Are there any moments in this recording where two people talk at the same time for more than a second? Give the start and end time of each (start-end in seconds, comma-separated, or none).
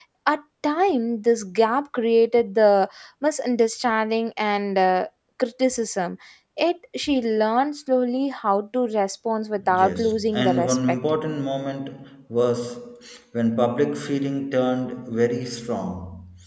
9.7-11.0